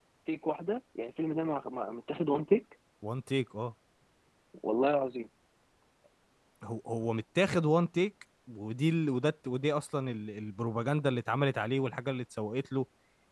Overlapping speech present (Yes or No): No